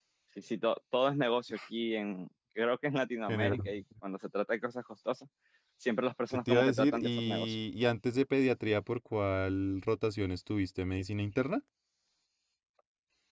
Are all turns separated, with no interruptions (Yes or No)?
No